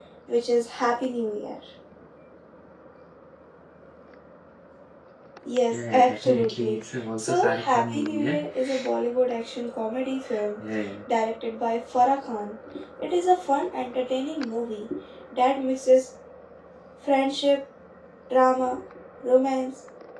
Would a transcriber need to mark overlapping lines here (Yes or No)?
Yes